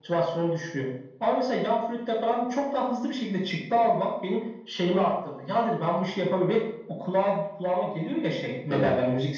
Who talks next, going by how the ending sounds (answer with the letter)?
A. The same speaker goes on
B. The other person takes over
A